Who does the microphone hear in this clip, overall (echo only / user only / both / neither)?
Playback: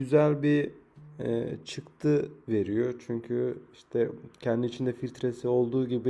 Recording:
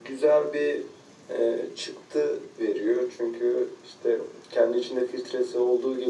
echo only